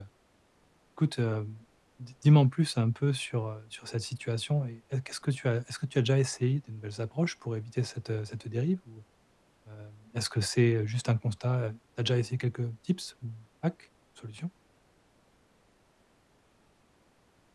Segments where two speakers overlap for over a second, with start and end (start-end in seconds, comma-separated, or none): none